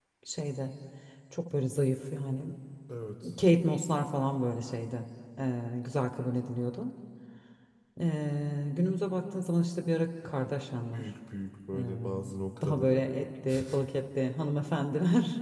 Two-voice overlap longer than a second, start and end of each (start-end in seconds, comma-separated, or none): none